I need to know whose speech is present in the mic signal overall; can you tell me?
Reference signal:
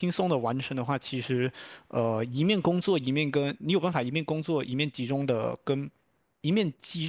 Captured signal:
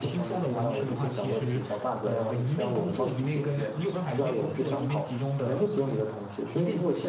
both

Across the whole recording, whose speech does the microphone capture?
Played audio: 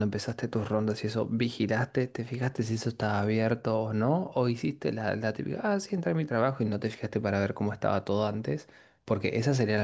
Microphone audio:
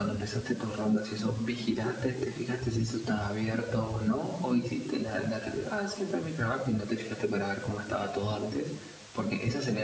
echo only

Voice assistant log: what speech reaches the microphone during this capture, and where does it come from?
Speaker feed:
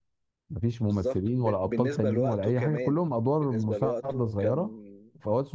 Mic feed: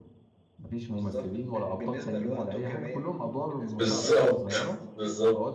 both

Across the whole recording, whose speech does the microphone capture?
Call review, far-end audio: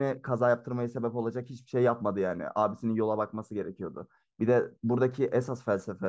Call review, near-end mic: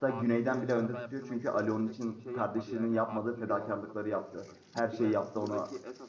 both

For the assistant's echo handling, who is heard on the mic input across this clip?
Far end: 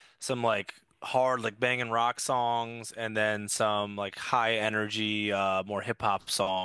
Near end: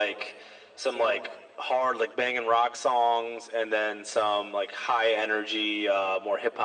echo only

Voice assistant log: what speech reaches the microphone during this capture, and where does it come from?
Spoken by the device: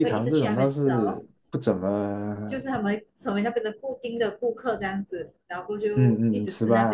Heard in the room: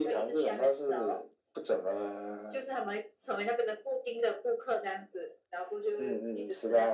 echo only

